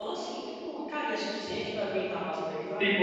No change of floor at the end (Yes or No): No